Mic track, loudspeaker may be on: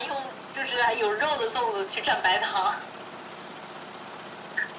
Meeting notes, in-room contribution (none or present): none